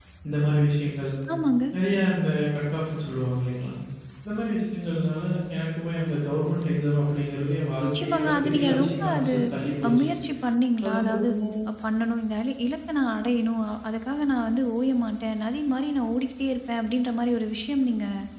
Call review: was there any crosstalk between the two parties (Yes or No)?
Yes